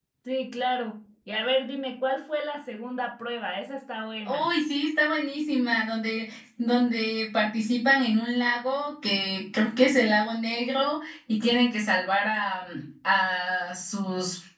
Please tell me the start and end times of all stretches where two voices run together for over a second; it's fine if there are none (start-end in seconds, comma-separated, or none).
none